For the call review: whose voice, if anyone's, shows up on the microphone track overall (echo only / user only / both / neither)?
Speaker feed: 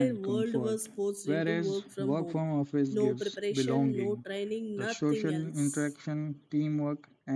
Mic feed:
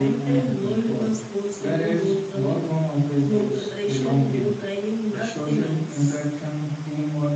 echo only